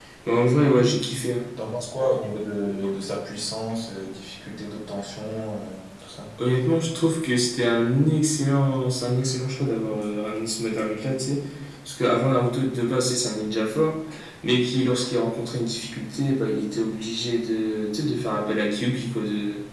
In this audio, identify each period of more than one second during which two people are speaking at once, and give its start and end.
none

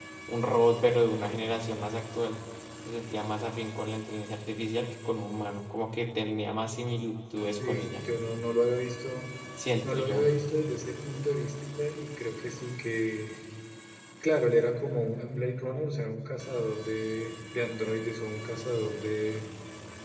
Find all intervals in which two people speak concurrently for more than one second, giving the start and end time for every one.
none

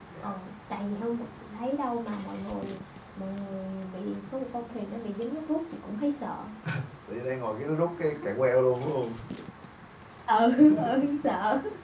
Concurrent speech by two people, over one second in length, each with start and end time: none

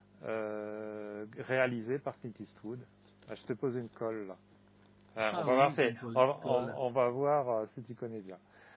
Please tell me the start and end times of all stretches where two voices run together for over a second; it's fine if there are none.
5.2-6.8

